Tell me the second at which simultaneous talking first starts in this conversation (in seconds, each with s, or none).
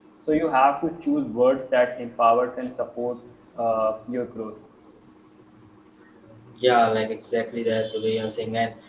none